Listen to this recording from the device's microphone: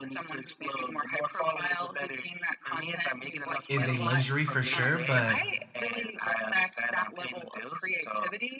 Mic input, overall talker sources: both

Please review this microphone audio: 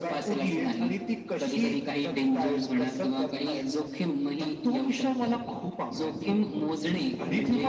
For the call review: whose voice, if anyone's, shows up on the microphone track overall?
echo only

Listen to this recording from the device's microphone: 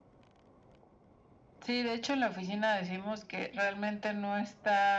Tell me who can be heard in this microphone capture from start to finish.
echo only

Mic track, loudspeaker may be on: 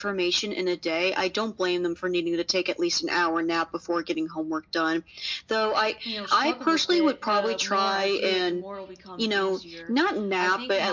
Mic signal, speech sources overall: both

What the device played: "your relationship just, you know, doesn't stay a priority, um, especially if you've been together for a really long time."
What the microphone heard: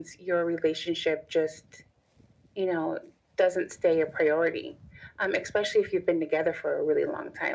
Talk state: echo only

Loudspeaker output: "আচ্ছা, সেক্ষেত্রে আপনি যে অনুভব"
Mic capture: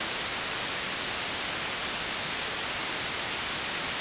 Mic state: neither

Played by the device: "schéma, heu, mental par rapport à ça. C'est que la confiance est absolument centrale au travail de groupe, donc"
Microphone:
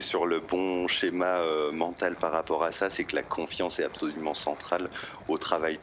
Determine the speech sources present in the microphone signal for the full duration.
echo only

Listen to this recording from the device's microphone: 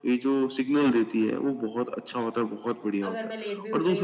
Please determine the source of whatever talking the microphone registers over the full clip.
both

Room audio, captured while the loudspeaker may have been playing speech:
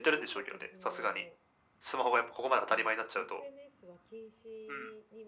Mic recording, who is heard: both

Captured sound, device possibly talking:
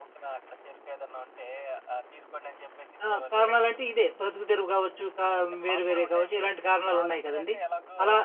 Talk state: both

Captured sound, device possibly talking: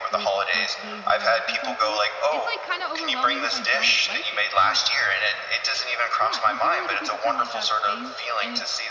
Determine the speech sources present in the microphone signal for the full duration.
both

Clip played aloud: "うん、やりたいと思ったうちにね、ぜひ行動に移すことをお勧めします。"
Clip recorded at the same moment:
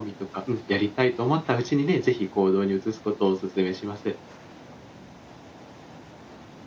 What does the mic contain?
echo only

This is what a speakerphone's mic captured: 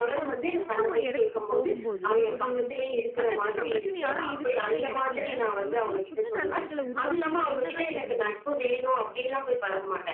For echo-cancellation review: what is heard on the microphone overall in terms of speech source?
both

